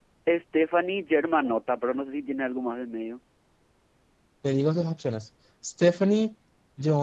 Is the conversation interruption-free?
Yes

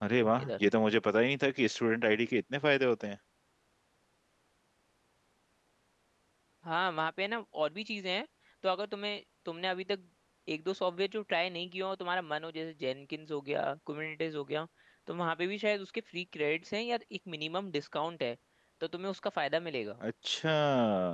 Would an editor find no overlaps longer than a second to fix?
Yes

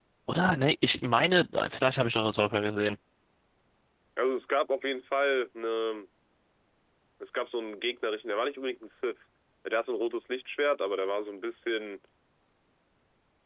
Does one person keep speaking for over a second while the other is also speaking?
No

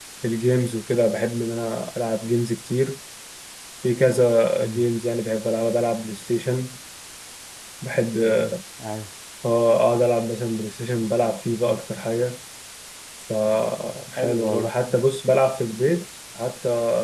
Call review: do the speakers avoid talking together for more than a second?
Yes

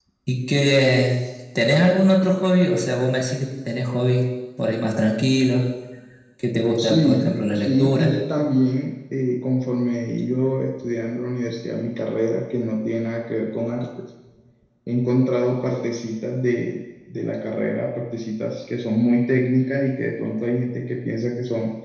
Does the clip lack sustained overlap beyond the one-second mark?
No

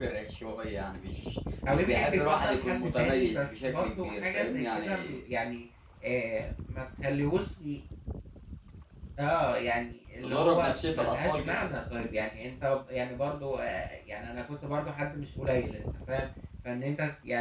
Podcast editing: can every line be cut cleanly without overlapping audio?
No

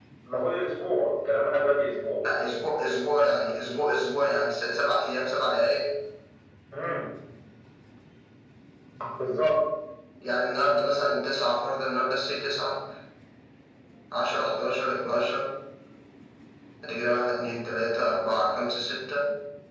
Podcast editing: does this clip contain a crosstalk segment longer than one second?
No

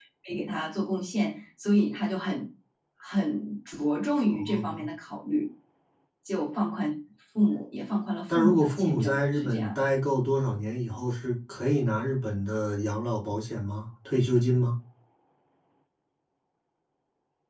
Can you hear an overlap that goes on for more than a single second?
Yes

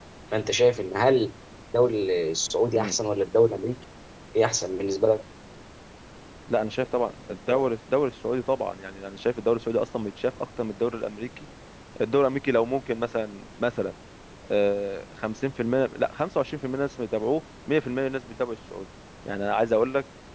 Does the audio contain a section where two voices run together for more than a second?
No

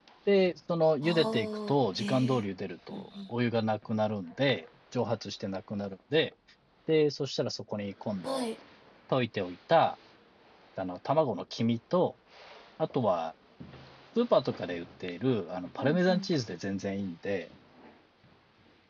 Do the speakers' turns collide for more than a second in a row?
Yes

